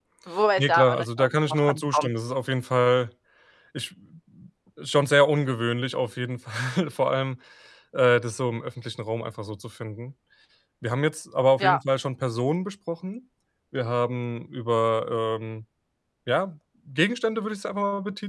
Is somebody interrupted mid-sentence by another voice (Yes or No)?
Yes